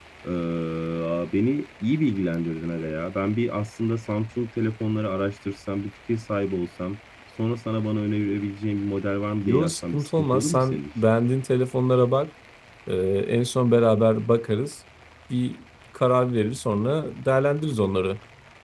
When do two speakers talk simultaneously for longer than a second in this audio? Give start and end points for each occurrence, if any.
9.4-10.8

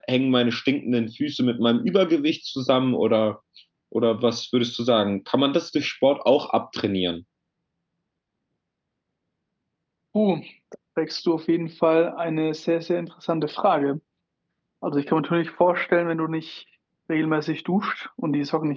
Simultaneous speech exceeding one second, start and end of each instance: none

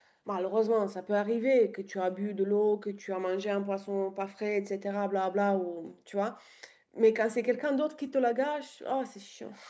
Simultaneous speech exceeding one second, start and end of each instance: none

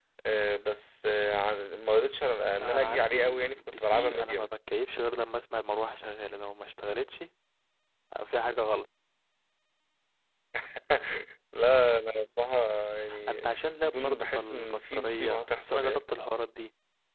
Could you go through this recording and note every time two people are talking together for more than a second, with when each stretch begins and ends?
2.5-4.5, 13.9-16.0

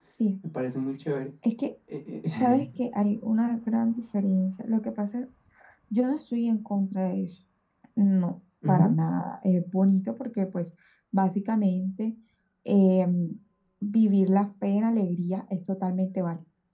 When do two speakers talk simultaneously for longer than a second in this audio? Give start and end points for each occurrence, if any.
none

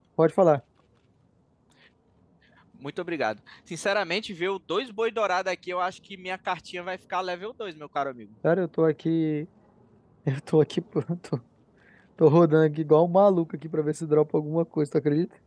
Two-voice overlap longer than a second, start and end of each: none

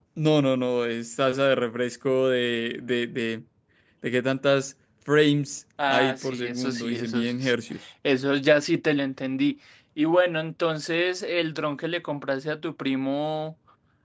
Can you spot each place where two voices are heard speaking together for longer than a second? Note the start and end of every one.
5.9-7.5

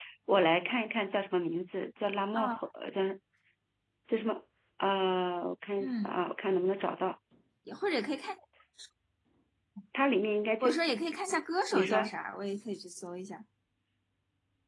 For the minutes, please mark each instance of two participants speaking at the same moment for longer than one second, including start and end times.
none

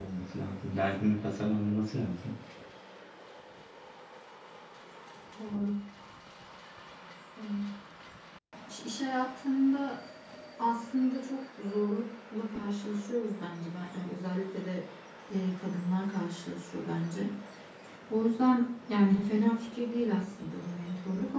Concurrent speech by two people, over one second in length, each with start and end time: none

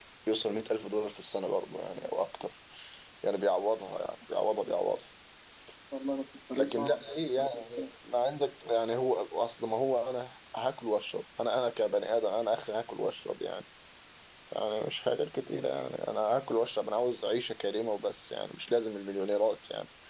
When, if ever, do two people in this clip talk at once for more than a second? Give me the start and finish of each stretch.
6.6-7.8

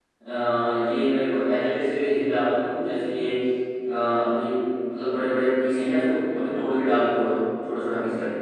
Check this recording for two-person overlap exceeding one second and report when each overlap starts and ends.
none

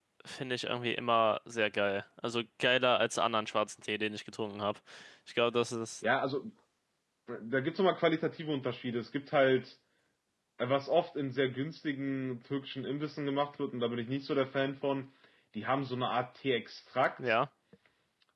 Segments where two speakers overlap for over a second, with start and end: none

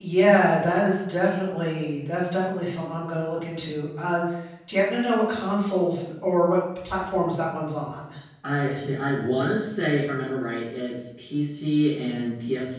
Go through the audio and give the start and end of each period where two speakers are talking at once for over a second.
none

